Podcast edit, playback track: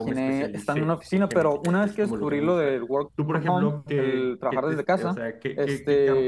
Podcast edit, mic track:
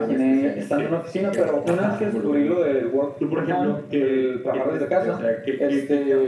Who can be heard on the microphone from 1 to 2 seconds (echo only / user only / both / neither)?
both